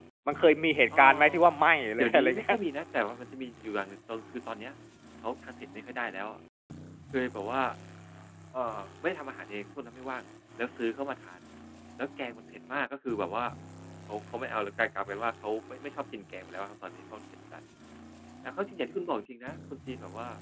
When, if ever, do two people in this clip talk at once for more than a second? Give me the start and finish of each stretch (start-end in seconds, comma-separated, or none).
none